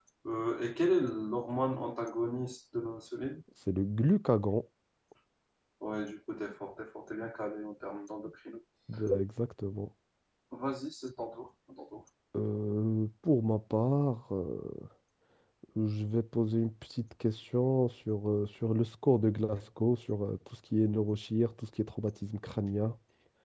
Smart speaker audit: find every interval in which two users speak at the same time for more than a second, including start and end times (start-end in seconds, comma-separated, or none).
none